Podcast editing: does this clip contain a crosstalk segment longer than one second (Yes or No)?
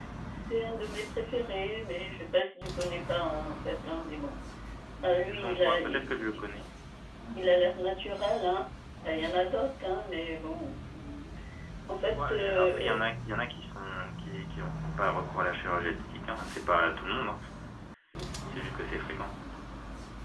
Yes